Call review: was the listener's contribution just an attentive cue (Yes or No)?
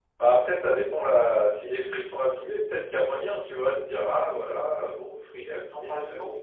No